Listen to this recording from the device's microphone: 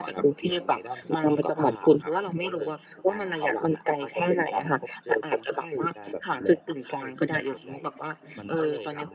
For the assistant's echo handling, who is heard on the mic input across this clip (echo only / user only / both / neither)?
echo only